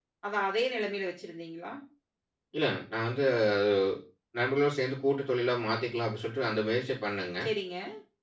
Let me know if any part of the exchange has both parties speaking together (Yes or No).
No